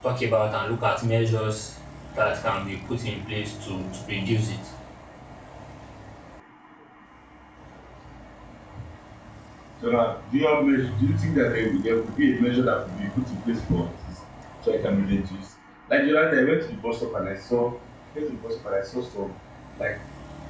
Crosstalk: none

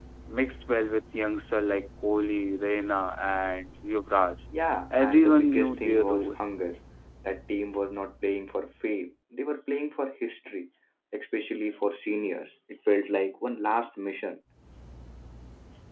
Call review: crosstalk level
present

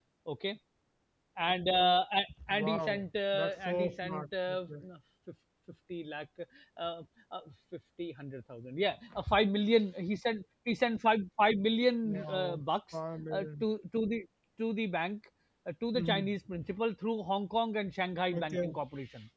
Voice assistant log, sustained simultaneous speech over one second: present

